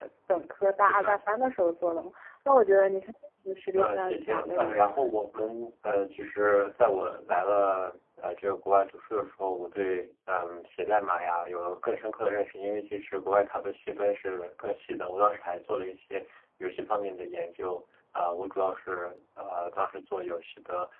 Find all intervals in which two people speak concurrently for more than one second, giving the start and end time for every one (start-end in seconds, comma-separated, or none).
3.8-5.1